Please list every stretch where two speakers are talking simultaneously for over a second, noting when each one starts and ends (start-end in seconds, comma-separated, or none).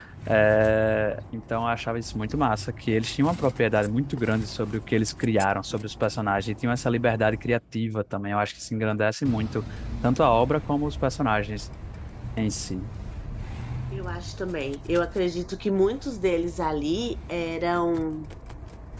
none